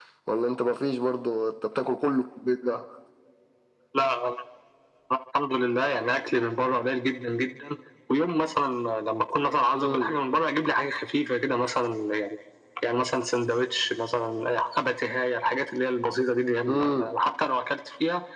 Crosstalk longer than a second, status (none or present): none